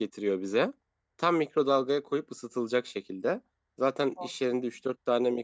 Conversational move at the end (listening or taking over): listening